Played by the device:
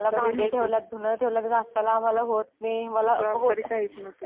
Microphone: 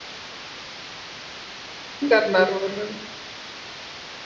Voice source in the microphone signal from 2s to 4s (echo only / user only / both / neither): user only